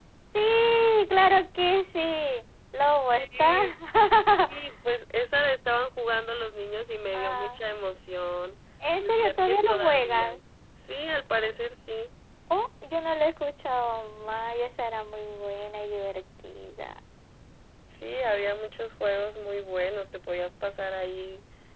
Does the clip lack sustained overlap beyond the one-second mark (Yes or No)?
No